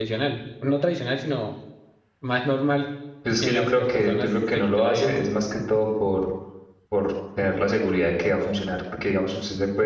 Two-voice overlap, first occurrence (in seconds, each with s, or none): 3.4 s